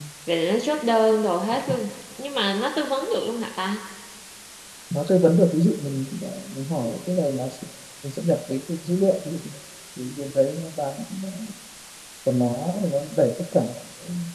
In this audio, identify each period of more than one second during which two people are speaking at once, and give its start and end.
none

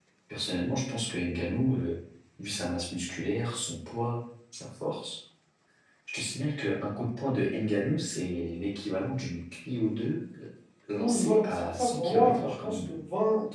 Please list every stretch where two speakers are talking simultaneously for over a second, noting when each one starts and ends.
10.9-12.9

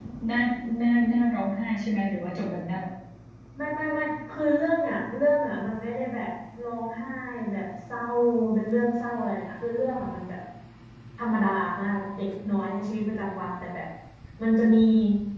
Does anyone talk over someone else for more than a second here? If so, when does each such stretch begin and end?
none

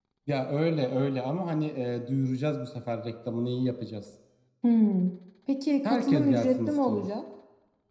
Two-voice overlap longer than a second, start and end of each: 5.8-7.1

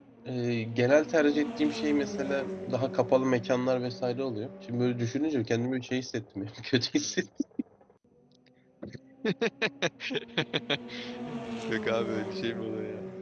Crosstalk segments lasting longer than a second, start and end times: none

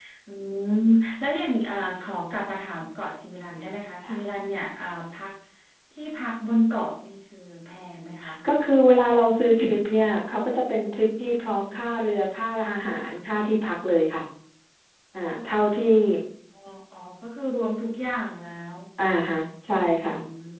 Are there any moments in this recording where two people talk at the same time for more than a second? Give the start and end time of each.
none

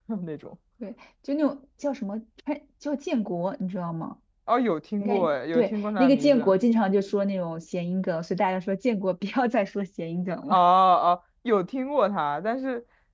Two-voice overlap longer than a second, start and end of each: 5.0-6.5

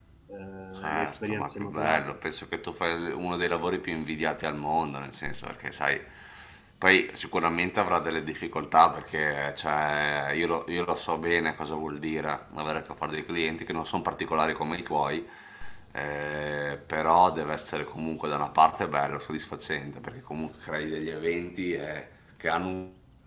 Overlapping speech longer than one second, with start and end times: 0.8-2.2

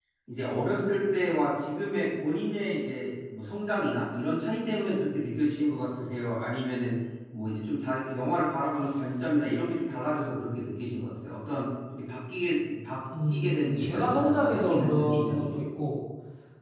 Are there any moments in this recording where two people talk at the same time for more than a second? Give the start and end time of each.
13.3-15.4

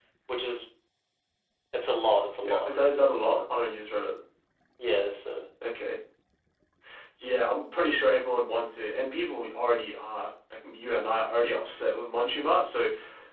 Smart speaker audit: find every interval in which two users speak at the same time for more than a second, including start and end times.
none

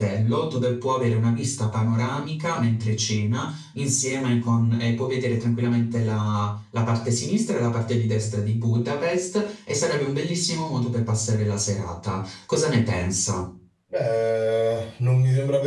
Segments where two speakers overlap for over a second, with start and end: none

